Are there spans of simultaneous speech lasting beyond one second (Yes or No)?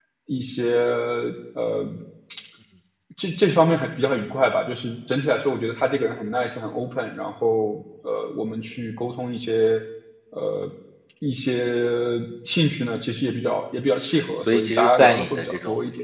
Yes